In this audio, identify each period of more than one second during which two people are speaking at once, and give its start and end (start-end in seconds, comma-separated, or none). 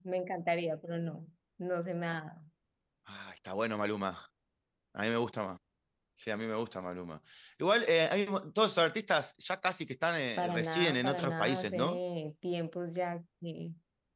10.4-12.0